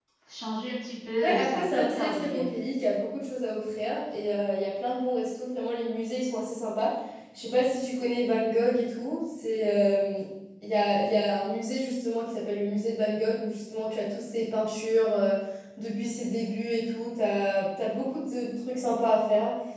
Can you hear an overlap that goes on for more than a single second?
Yes, from 1.2 s

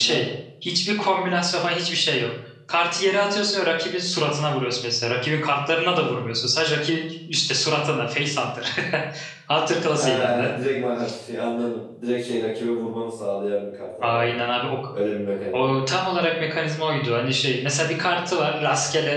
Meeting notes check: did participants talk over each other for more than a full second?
No

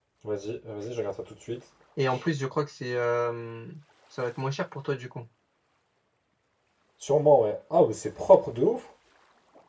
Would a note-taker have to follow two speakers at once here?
No

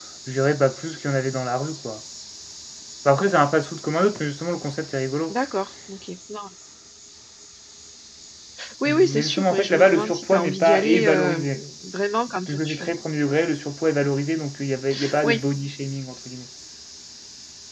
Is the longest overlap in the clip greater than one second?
Yes, from 8.8 s

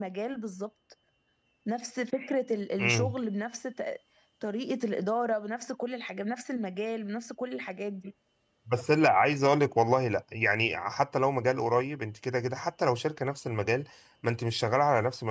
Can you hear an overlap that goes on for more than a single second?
No

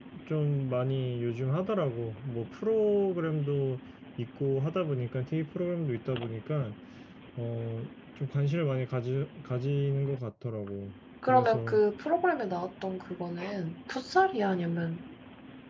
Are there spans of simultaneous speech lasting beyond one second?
No

